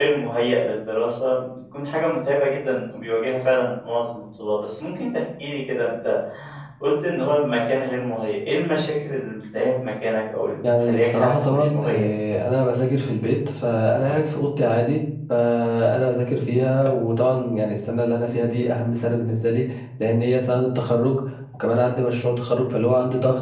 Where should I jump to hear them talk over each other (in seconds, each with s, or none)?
10.6 s